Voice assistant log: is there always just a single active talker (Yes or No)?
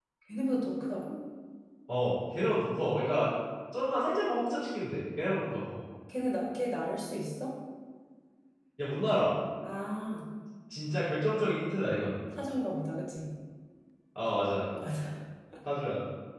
Yes